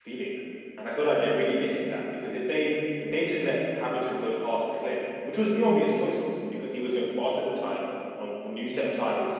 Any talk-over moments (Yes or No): No